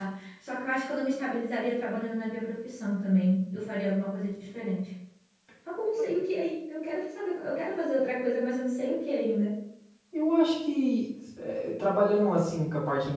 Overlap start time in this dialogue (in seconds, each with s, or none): none